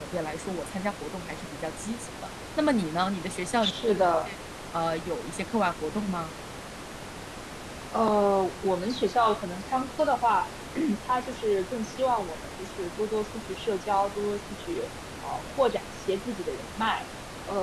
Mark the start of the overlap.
none

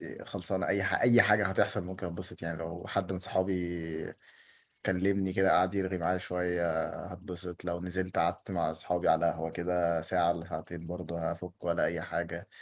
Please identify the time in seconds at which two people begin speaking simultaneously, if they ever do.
none

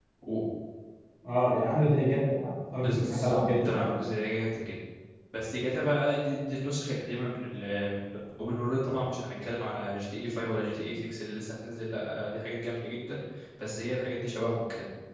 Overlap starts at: 2.8 s

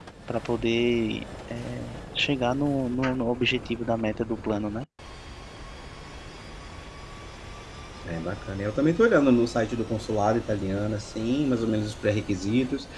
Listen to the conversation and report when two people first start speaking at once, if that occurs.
none

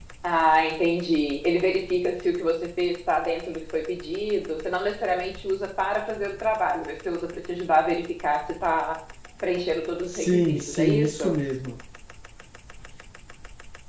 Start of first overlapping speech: 10.1 s

